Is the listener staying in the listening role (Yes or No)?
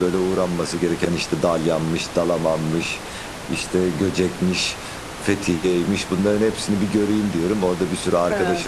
Yes